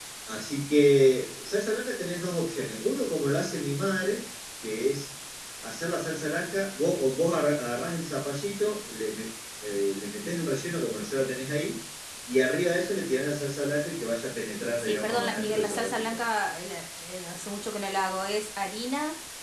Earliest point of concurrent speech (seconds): 14.8 s

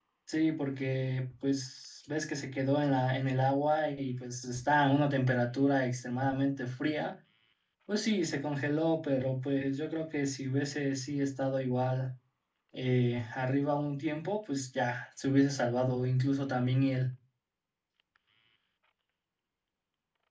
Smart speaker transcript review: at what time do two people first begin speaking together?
none

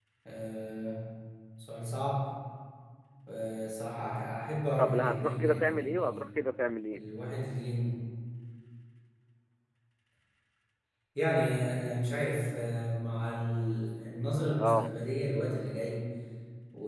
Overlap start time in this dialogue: 4.8 s

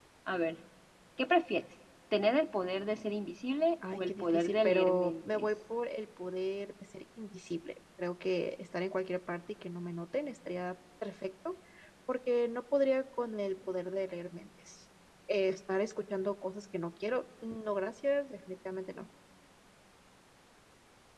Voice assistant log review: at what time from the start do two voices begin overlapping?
3.8 s

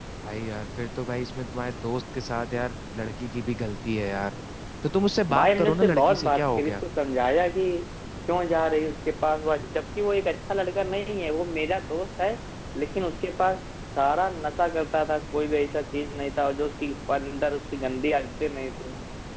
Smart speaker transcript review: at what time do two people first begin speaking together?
5.3 s

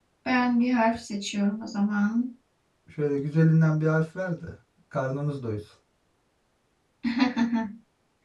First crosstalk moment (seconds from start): none

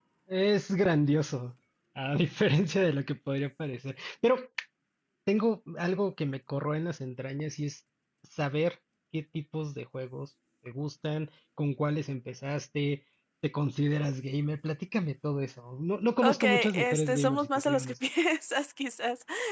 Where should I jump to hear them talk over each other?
16.2 s

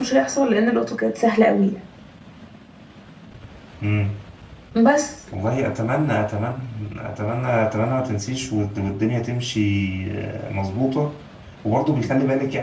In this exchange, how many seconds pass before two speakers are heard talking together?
none

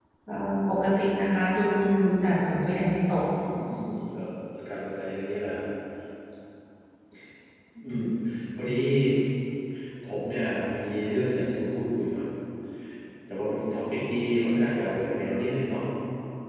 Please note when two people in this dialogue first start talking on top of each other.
none

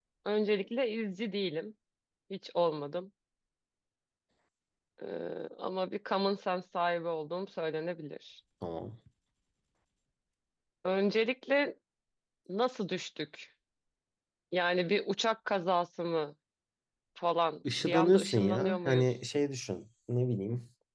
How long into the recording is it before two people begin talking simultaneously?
17.8 s

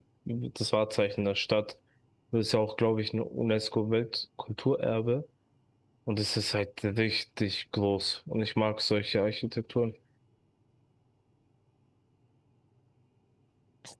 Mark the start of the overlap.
none

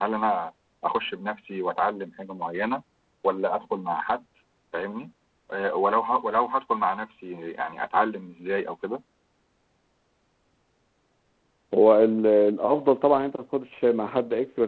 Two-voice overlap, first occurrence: none

